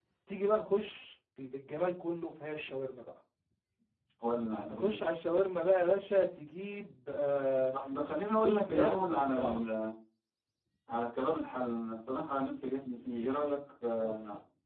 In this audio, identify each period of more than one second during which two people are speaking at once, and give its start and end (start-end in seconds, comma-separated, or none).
8.0-9.7